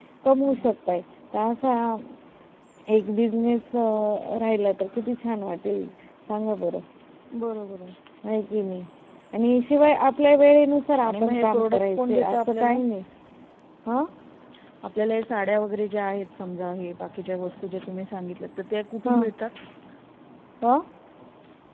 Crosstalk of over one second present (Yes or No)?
Yes